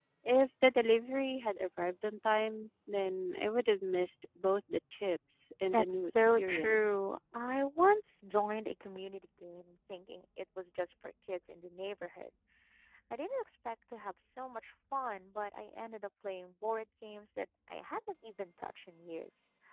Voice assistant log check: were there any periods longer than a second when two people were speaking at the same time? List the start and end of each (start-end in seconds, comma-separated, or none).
5.7-6.9